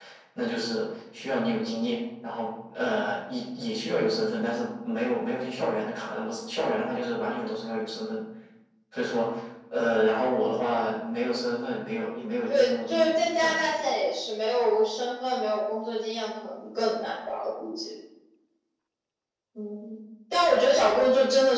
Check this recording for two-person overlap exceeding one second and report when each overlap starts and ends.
12.5-13.8

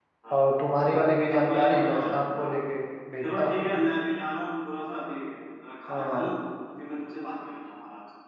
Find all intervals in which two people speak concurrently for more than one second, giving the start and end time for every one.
1.3-2.5

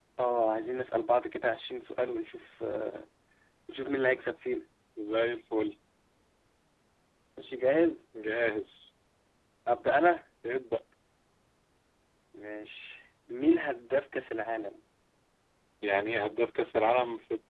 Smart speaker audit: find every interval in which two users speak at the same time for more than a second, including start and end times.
none

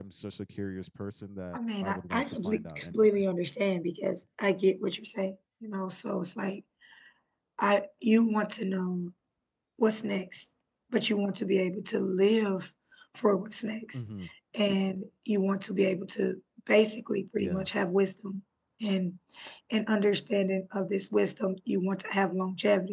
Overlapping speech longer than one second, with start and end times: 1.5-3.2

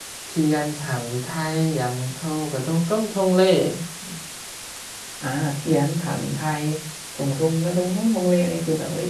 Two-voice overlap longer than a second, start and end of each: none

